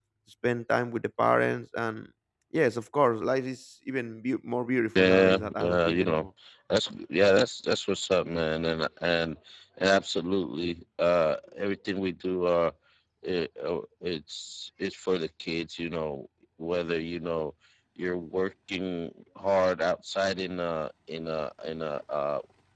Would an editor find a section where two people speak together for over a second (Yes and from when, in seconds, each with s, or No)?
Yes, from 5.0 s